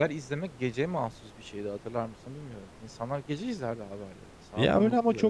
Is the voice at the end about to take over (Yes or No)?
Yes